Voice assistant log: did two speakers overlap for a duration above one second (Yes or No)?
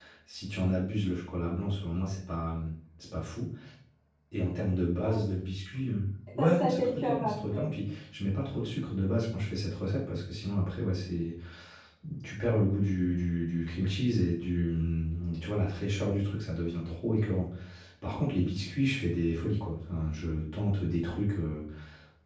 Yes